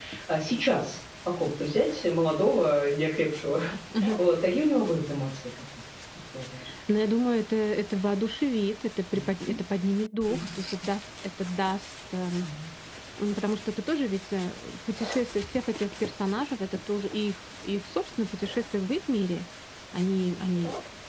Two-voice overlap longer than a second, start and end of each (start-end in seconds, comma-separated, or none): none